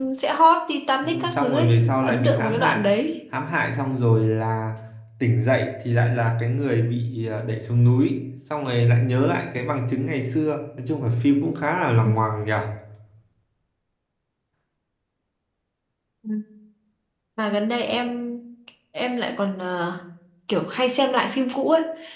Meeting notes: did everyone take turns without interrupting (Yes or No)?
No